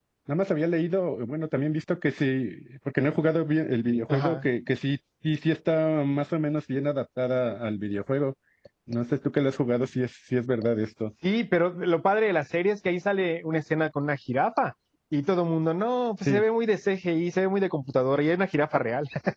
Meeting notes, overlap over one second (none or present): none